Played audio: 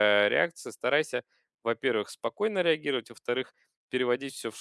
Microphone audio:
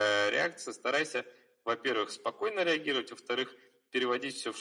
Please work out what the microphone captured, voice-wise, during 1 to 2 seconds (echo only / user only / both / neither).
echo only